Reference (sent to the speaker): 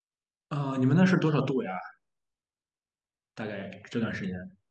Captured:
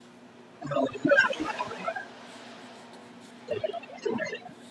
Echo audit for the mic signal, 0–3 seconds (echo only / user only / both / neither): echo only